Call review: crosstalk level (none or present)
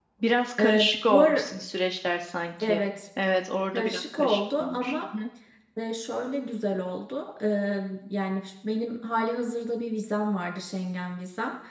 present